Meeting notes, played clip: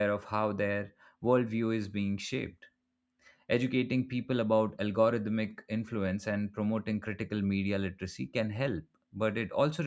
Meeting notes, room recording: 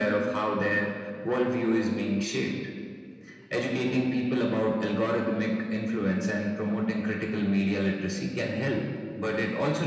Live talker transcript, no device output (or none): none